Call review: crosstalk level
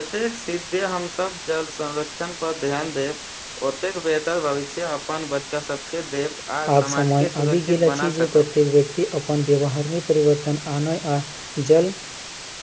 present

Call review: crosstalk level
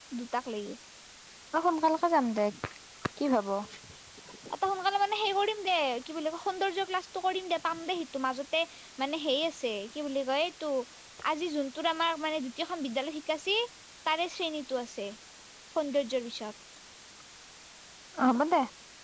none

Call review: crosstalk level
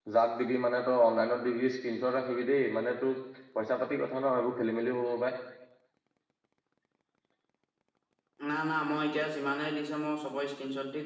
none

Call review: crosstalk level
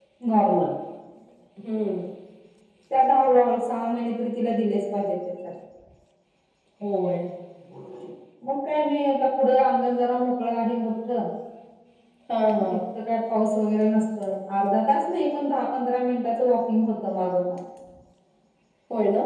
none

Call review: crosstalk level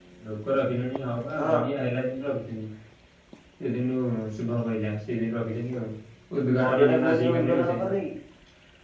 present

